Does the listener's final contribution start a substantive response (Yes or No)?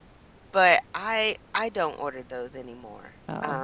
Yes